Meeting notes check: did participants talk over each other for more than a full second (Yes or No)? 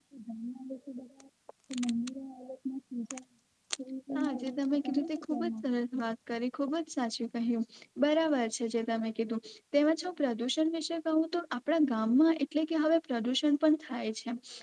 Yes